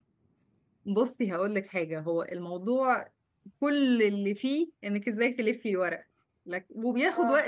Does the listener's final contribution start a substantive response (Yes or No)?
No